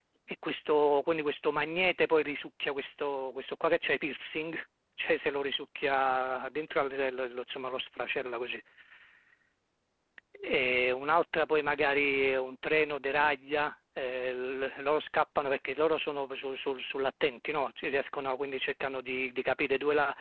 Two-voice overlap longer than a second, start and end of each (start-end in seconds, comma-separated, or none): none